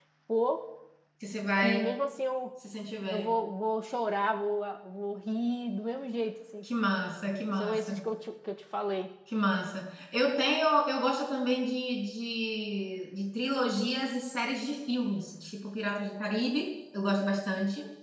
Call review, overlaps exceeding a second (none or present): none